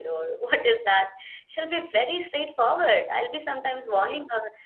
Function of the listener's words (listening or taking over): listening